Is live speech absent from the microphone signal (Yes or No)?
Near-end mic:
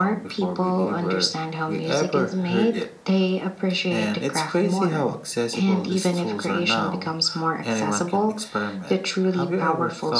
Yes